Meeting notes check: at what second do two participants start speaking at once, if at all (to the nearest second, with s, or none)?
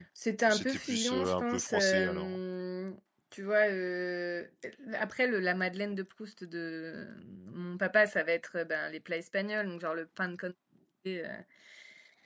1 s